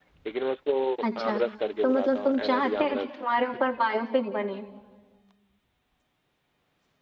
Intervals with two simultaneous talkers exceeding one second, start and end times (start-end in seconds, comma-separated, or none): 1.8-3.1